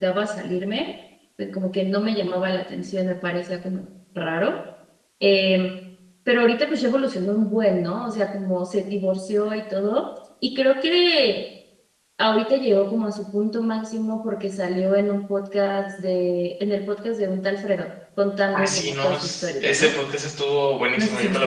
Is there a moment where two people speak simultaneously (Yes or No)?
Yes